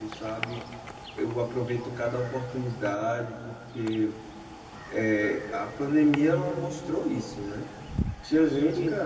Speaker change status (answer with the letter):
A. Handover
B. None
B